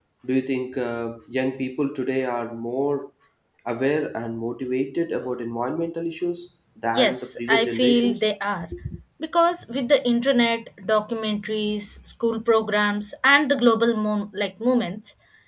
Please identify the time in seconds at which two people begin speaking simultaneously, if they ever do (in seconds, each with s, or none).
7.0 s